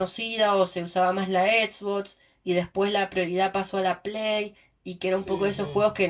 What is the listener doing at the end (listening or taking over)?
listening